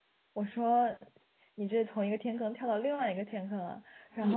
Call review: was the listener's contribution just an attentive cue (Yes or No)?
Yes